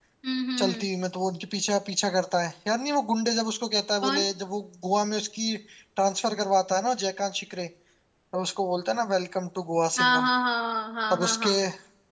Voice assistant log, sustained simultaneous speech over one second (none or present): none